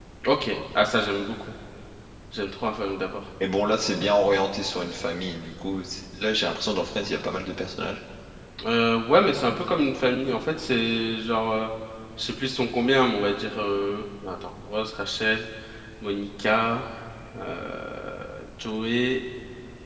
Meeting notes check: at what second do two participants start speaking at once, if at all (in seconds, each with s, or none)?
none